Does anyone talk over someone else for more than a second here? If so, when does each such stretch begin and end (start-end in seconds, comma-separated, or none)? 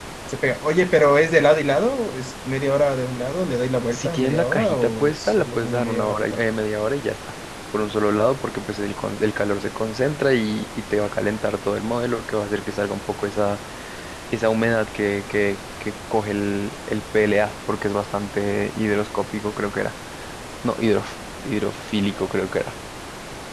3.9-6.4